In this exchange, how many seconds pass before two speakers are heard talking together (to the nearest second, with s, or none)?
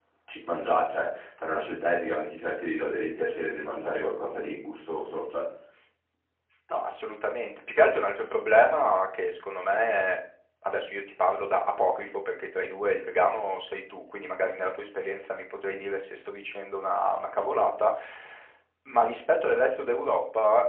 none